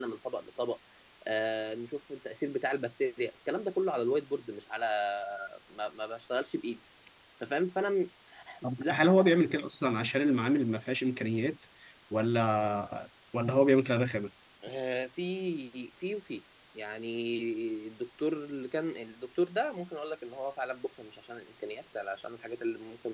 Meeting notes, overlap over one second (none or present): none